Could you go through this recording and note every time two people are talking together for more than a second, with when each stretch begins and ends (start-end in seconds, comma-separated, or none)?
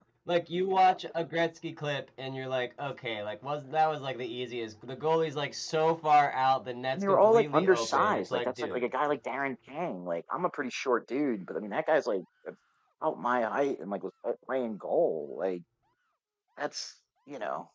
7.0-8.8